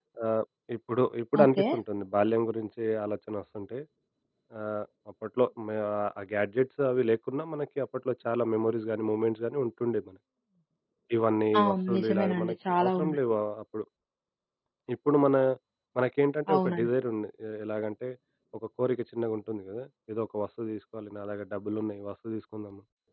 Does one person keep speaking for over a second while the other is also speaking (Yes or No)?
Yes